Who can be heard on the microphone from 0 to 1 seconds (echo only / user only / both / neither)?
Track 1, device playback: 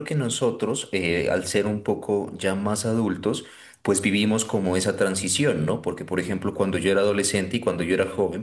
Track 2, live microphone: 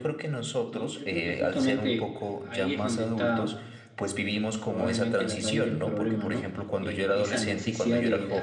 both